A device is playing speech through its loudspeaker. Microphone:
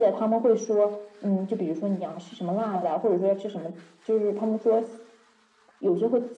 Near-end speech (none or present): none